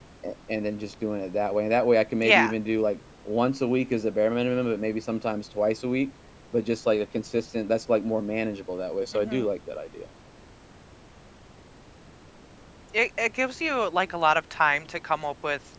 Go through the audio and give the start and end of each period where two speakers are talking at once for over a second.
none

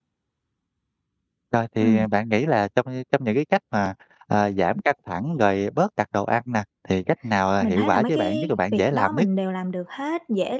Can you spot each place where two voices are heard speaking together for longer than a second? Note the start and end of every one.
7.6-9.3

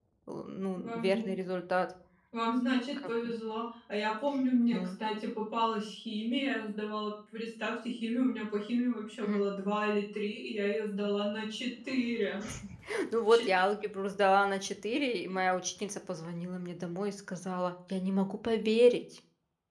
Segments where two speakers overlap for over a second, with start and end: none

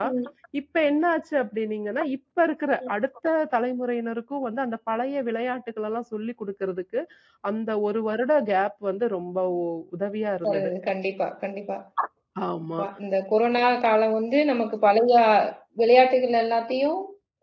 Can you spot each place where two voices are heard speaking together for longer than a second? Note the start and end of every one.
none

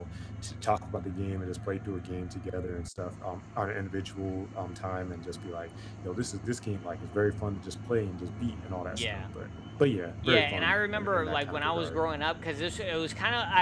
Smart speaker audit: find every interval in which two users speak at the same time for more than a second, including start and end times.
10.2-12.0

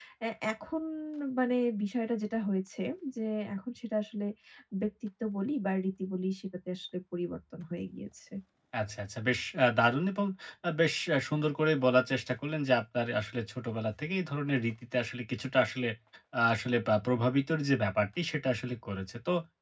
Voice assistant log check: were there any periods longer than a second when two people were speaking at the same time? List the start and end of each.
none

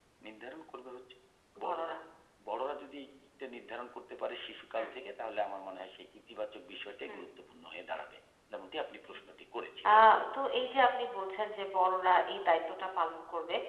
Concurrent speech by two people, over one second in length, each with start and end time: none

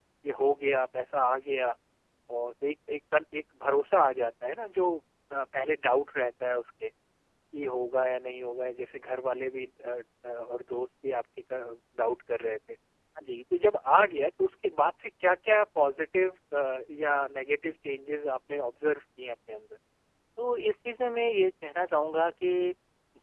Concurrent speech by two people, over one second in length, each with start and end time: none

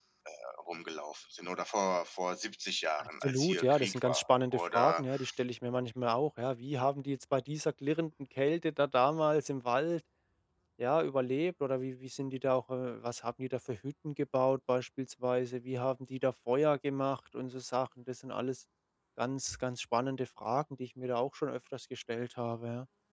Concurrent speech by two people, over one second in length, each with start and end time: 3.0-5.0

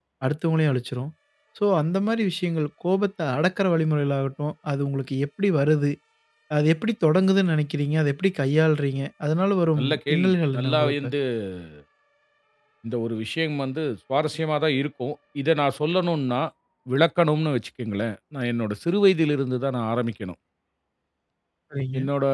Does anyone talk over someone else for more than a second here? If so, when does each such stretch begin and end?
9.8-11.1

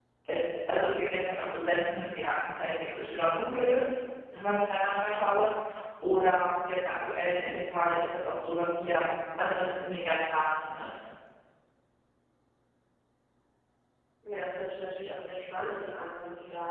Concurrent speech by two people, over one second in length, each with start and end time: none

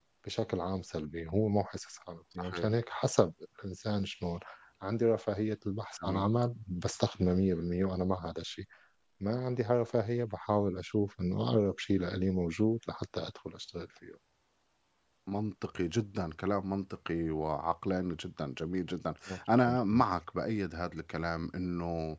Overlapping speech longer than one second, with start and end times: none

